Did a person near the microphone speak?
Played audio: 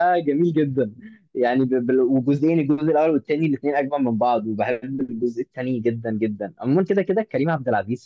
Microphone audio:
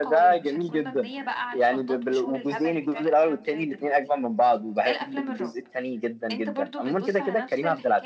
Yes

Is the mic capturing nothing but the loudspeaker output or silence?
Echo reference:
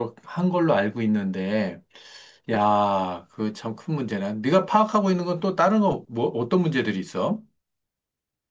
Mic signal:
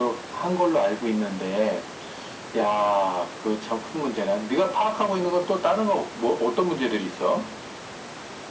Yes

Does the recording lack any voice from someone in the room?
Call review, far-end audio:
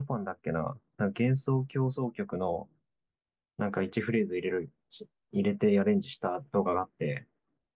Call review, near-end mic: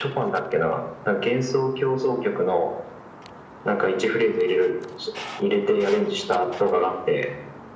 Yes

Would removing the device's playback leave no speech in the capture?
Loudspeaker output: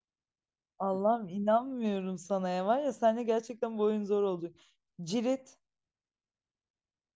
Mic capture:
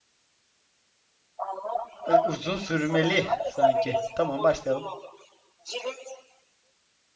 No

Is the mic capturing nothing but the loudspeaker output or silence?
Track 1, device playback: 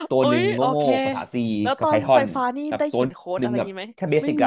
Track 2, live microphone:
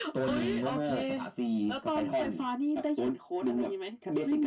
Yes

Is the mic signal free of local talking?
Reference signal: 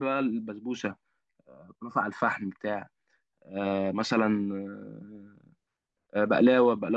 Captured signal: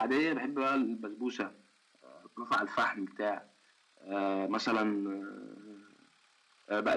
Yes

